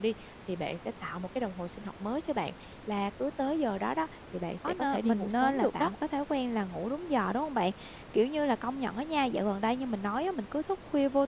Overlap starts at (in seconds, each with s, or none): 4.6 s